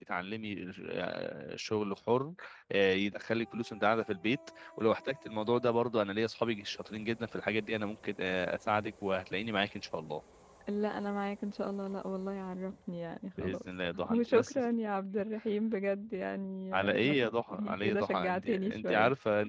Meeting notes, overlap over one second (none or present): present